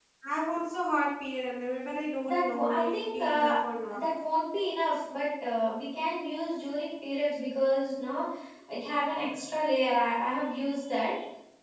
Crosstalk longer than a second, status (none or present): present